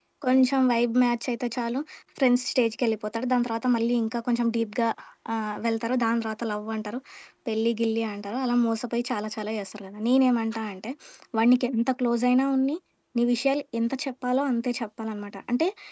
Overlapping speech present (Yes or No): No